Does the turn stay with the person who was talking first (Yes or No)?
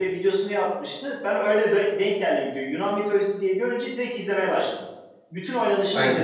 Yes